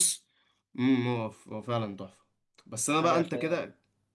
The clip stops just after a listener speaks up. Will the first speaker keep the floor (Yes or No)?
Yes